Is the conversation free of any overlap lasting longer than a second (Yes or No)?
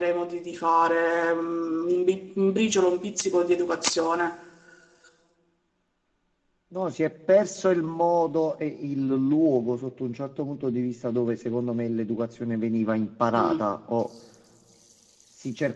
Yes